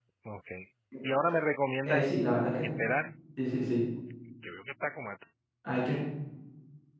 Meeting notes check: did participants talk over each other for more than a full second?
No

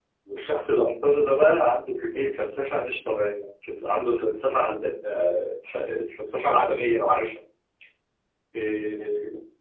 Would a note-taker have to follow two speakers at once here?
No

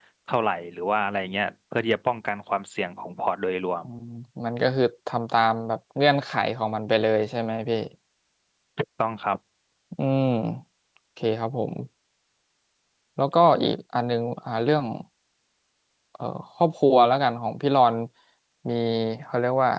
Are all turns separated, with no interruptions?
Yes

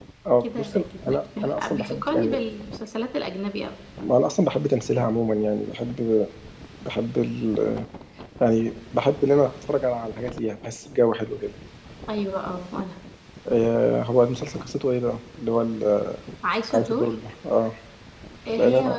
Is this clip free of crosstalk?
No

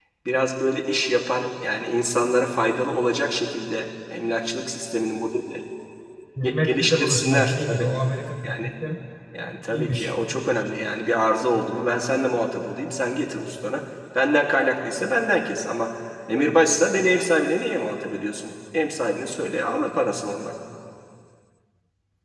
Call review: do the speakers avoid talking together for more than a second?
No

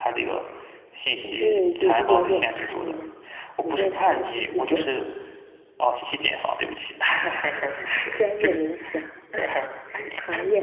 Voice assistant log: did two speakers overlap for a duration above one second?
Yes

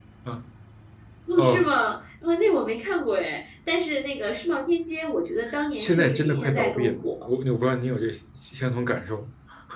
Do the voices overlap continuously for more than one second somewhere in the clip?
Yes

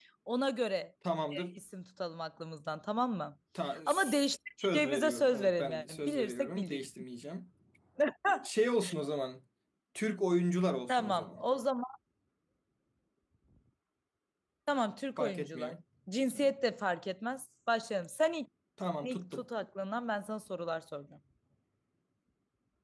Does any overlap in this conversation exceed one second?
Yes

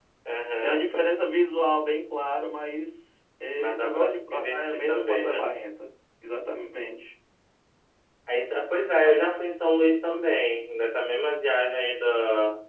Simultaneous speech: Yes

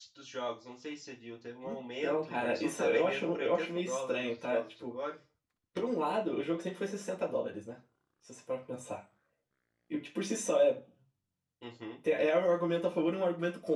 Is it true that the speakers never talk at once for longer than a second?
No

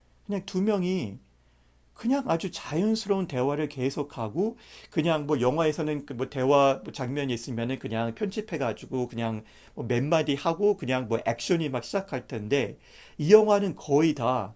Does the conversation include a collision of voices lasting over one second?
No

